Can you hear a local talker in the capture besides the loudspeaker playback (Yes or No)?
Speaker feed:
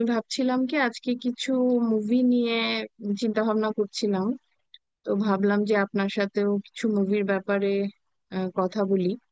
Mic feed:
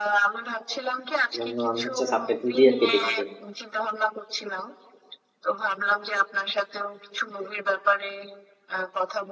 Yes